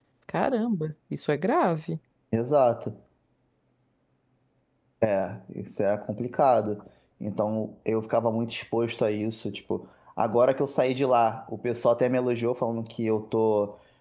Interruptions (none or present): none